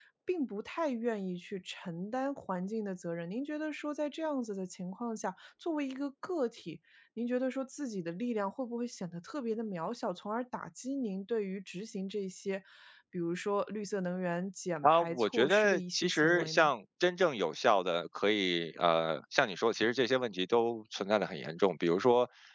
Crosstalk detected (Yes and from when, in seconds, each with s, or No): Yes, from 14.8 s